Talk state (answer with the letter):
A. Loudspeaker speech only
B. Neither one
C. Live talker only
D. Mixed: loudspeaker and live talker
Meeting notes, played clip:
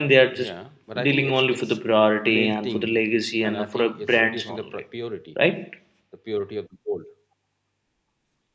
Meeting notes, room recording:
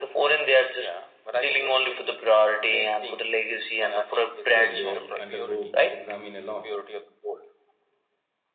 D